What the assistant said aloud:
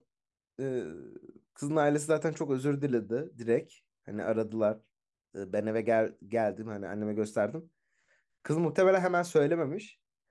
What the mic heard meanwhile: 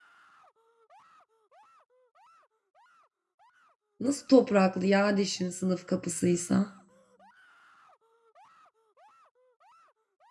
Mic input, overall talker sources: user only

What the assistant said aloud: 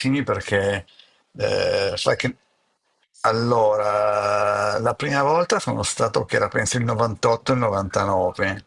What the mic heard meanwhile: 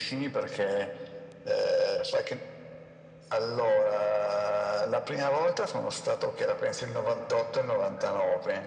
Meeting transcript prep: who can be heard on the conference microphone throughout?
echo only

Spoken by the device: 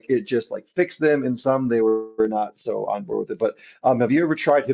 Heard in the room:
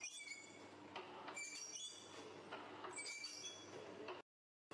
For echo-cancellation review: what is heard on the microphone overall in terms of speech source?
neither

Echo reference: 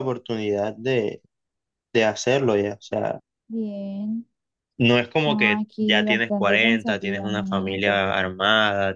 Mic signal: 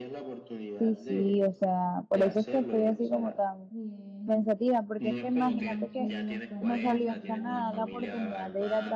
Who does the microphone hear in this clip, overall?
both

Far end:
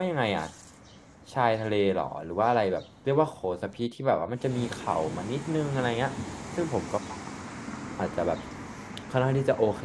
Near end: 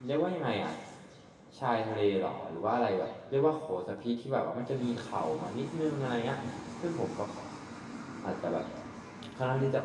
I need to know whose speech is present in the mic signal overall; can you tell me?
echo only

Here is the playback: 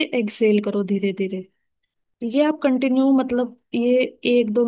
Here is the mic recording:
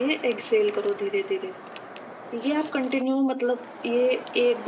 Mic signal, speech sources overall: echo only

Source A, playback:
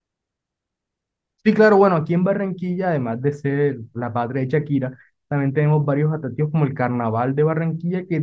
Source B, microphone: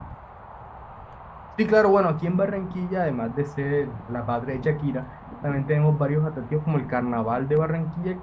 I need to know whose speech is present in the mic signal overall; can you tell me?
echo only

